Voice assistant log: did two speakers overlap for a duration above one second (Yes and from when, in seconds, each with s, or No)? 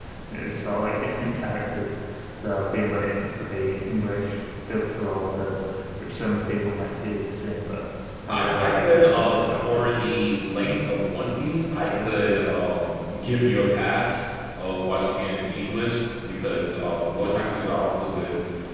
Yes, from 8.3 s